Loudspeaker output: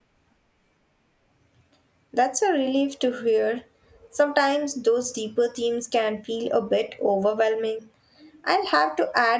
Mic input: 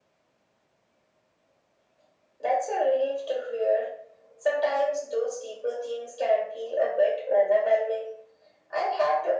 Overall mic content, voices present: echo only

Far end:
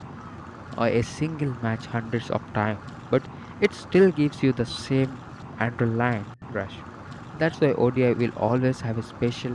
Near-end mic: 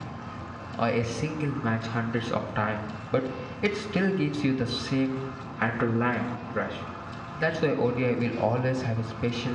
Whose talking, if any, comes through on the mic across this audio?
echo only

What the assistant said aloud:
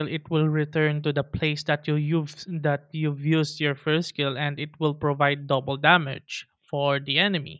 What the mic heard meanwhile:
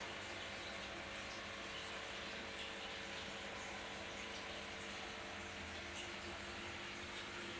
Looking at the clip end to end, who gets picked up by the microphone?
neither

